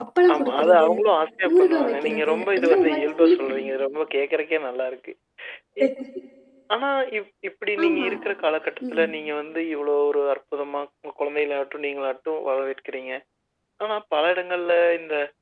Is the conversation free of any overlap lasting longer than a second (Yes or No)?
No